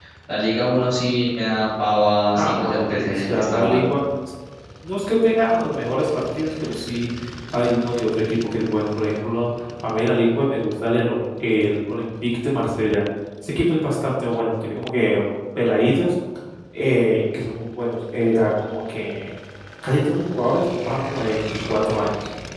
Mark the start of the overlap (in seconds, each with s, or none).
2.3 s